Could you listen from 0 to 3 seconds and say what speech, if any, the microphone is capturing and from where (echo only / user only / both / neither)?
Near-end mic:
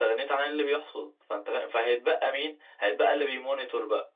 echo only